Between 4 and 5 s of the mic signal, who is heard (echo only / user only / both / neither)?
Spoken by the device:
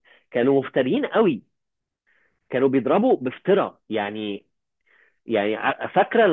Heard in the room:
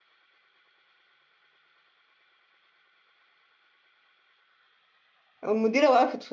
neither